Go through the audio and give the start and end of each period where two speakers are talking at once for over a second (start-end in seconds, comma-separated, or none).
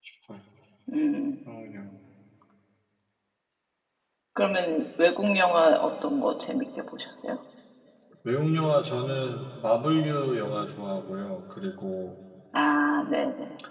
none